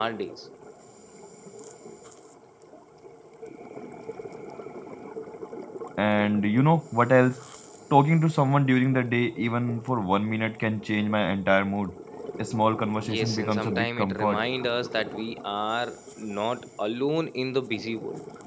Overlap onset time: 13.0 s

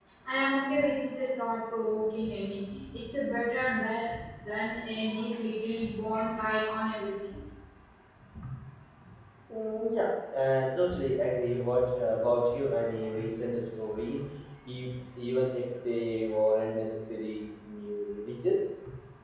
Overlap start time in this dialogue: none

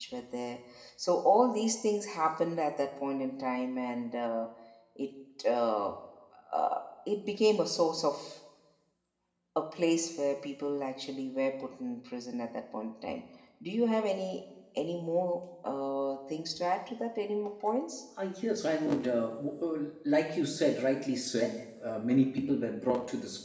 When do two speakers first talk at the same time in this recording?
none

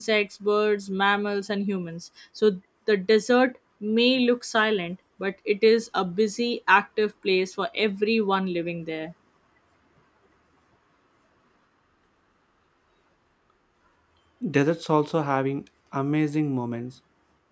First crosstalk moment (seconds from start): none

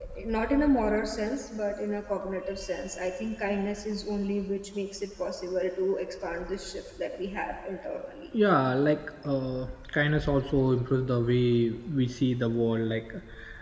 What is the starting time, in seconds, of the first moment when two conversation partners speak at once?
none

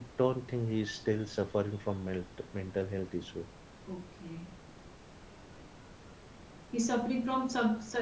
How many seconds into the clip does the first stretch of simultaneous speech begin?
none

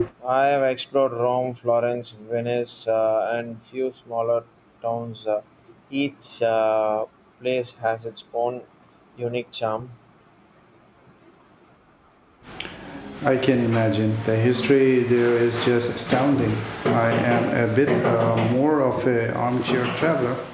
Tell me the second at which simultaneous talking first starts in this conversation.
none

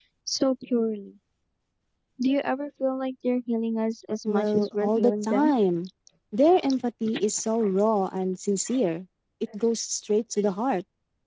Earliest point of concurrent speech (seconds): 4.2 s

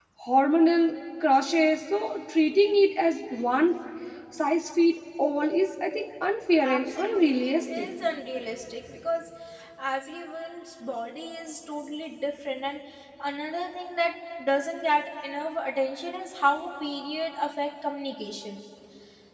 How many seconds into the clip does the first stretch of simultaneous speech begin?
6.6 s

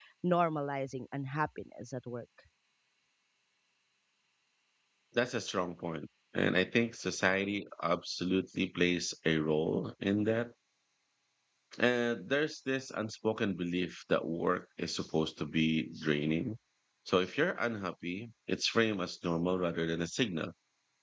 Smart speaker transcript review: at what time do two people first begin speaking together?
none

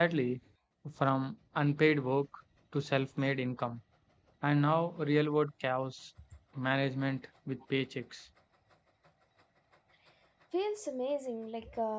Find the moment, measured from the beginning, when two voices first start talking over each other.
none

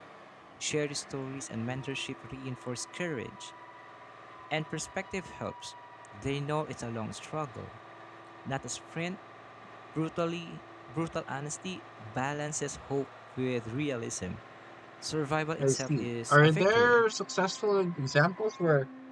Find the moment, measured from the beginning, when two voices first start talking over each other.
15.6 s

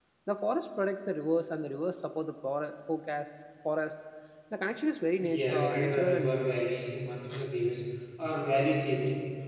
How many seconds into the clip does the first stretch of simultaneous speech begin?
5.3 s

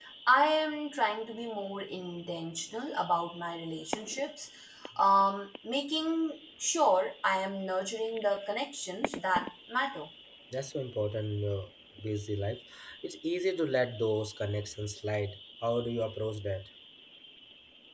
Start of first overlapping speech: none

